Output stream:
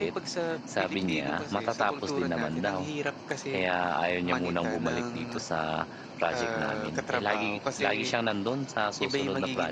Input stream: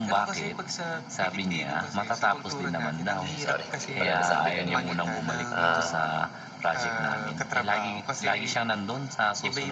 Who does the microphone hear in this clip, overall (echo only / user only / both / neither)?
both